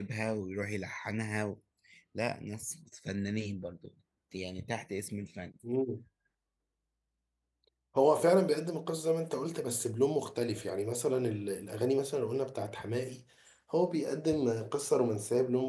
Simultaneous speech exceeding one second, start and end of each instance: none

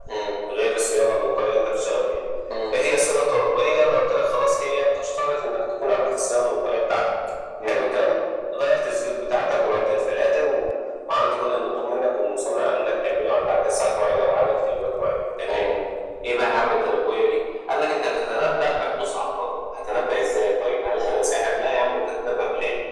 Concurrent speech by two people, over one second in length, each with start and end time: none

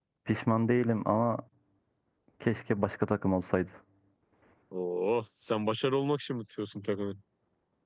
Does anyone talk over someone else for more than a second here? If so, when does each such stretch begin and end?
none

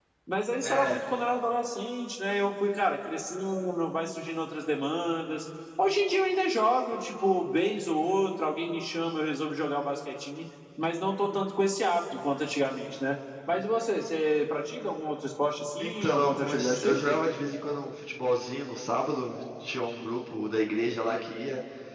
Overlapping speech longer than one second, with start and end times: 15.8-17.2

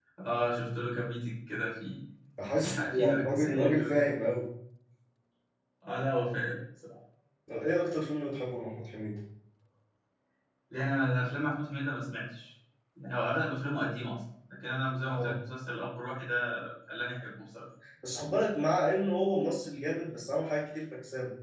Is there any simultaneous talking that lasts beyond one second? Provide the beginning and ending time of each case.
2.5-3.9

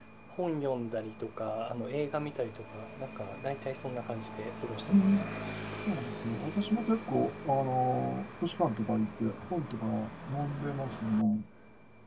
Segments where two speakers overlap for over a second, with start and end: none

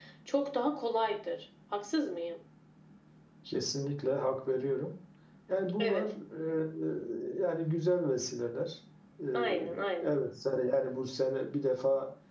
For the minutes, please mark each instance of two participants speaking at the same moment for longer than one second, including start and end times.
none

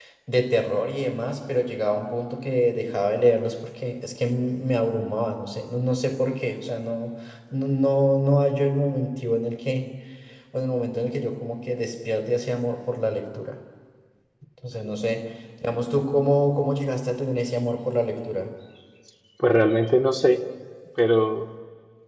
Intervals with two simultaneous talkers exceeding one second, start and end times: none

